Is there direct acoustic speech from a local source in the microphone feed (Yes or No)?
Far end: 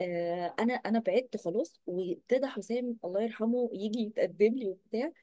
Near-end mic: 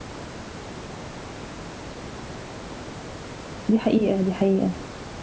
Yes